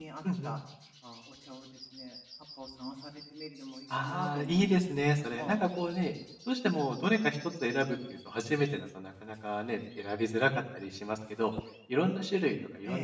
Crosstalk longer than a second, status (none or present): present